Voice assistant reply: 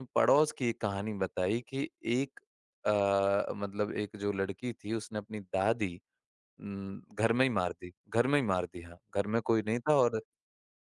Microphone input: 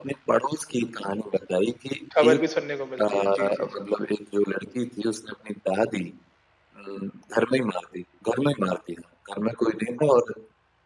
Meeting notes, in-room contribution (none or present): present